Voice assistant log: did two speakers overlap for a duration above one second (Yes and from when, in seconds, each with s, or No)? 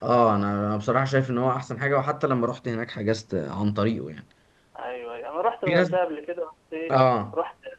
No